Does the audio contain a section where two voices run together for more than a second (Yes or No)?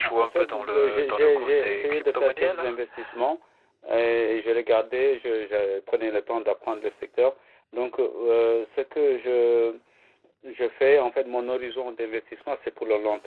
Yes